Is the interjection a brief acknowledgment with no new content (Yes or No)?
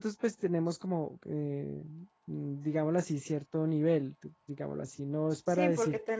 No